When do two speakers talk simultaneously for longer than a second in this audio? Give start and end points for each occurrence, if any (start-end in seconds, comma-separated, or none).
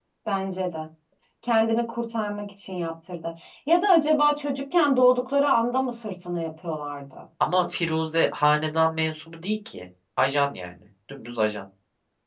none